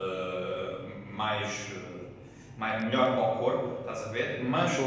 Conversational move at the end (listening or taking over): listening